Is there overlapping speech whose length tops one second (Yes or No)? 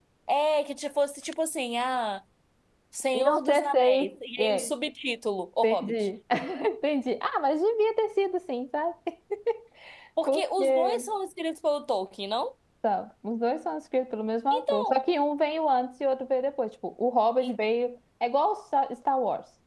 Yes